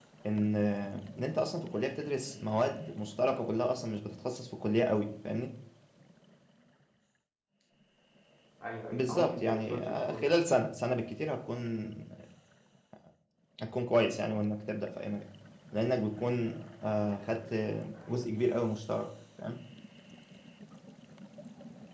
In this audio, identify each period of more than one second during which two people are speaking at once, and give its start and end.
8.9-10.2

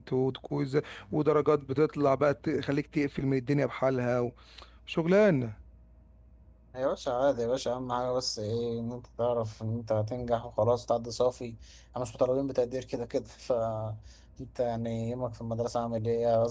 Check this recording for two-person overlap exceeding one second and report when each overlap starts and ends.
none

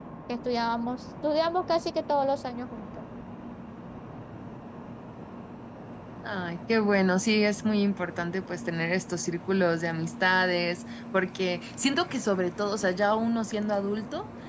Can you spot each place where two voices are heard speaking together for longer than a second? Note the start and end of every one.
none

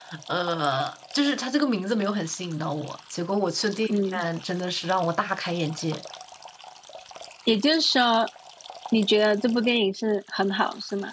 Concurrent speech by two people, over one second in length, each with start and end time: none

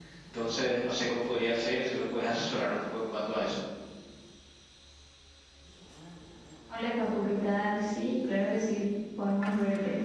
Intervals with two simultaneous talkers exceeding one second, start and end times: none

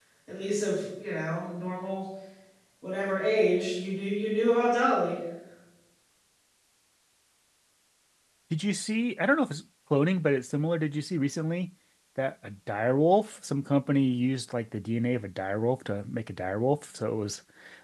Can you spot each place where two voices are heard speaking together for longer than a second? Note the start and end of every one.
none

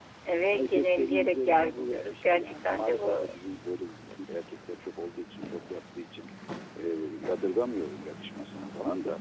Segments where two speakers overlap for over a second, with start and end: 0.5-3.4

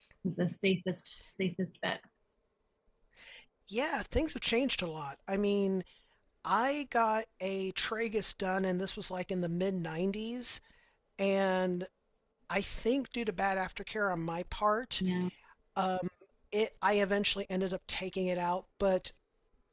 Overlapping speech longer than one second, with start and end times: none

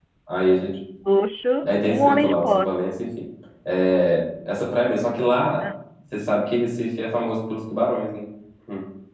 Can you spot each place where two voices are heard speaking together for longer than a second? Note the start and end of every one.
1.6-2.9

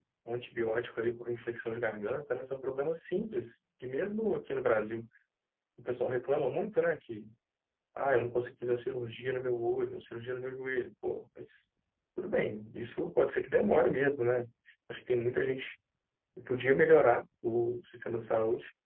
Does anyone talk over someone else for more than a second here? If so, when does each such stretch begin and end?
none

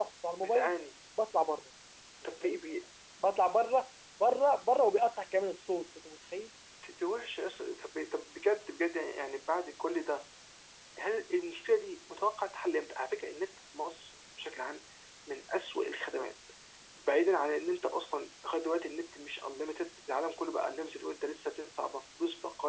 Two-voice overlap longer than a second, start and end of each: none

